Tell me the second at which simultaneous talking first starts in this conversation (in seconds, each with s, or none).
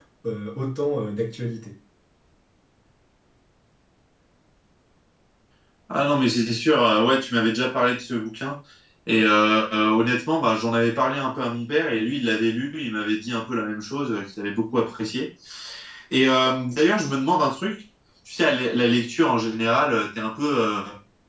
none